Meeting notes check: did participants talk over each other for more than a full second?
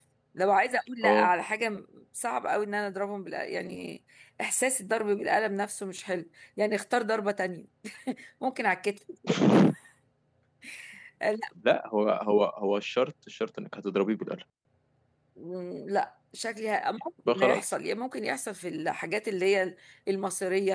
No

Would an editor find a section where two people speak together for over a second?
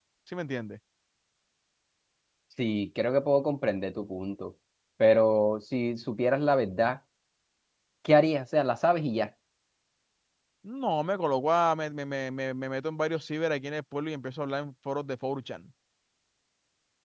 No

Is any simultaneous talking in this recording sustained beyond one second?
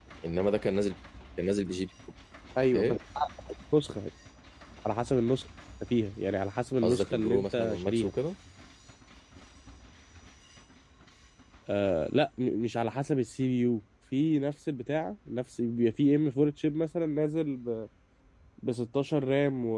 Yes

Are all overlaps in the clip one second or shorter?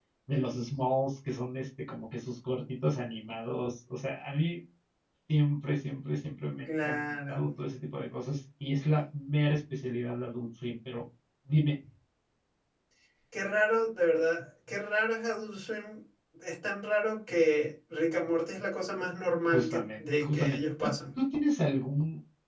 No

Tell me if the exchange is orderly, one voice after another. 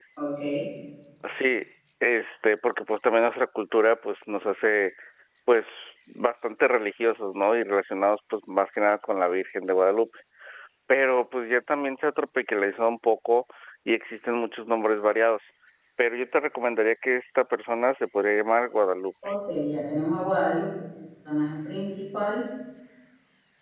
Yes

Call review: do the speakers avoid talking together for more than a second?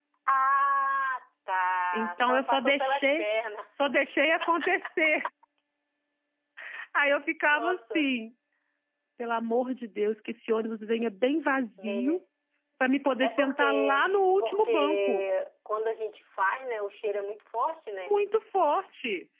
No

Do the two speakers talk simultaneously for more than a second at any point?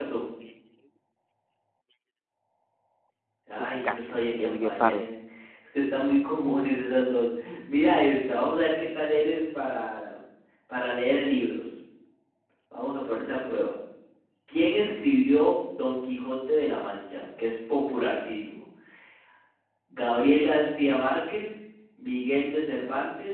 Yes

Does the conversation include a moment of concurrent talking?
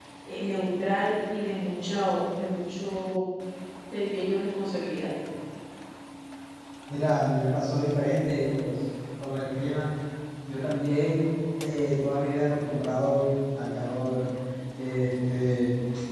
No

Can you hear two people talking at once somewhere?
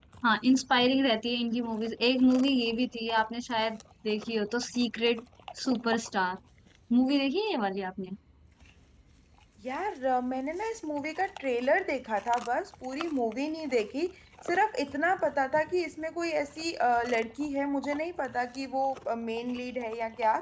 No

